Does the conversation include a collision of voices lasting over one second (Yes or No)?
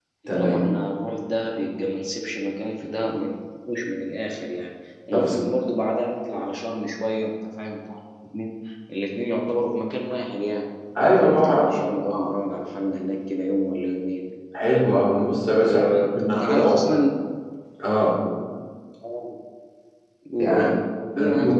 Yes